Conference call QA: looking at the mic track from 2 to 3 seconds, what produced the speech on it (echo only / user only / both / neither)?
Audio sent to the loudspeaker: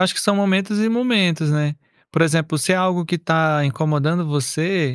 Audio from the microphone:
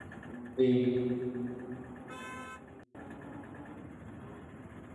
neither